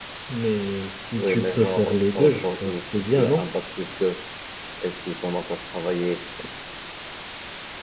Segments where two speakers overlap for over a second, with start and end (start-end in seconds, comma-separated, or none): 1.2-3.4